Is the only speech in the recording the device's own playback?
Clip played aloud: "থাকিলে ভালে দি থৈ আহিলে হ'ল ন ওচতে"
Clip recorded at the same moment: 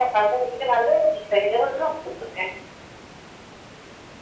Yes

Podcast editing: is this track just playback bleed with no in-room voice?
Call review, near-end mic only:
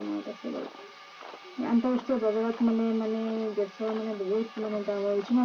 Yes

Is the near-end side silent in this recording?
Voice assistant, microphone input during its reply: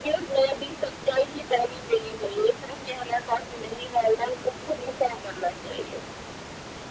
Yes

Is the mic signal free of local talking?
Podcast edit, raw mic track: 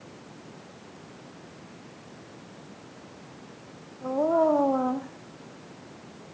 No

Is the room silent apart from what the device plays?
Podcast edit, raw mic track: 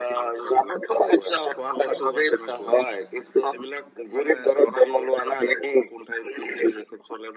Yes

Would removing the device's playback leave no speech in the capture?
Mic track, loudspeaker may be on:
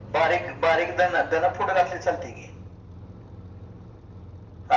Yes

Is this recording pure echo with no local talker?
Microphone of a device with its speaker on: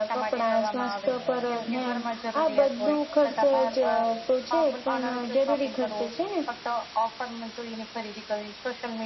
Yes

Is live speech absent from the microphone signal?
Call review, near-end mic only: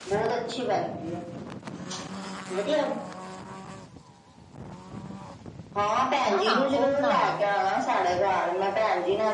No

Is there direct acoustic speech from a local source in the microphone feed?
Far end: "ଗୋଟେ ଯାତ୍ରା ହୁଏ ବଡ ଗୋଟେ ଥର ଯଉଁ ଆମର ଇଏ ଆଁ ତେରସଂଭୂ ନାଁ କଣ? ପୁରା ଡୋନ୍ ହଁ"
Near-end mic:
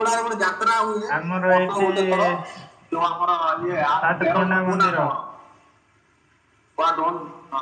Yes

